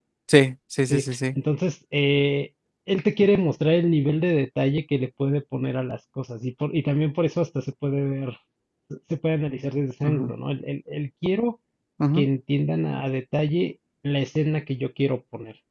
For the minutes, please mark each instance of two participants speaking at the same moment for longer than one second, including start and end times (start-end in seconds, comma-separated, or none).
none